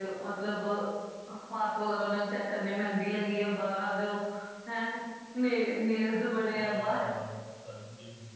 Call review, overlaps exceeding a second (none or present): none